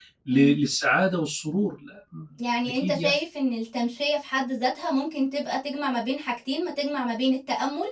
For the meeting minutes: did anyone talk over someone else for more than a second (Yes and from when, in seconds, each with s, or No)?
No